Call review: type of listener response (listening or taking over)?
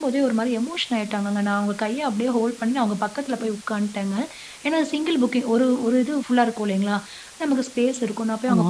listening